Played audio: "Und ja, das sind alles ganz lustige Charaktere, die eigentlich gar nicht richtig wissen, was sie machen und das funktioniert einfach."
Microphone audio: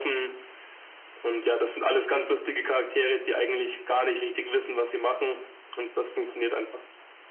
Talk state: echo only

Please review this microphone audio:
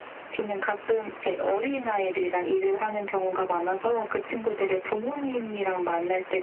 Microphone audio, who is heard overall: echo only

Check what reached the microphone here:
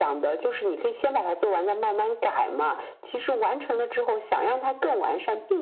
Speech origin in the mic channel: echo only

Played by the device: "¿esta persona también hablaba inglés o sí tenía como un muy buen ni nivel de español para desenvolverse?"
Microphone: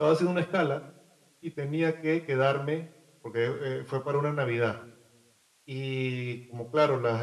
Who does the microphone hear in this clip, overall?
user only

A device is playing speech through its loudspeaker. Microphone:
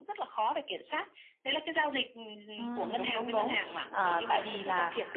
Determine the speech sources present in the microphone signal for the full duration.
both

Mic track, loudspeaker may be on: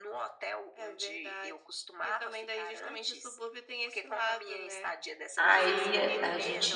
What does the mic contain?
both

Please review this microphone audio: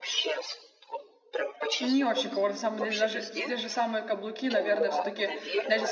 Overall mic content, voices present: both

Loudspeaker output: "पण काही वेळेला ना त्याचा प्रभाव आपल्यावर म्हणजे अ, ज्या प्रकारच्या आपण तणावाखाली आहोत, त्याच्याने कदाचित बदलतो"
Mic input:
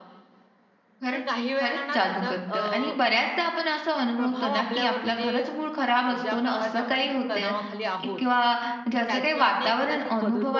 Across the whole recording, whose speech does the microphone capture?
both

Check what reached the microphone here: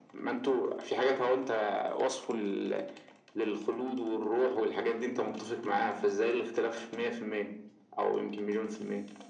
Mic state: echo only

